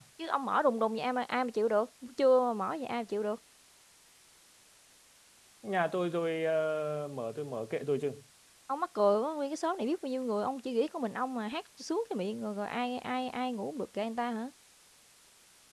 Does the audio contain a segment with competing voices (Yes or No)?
No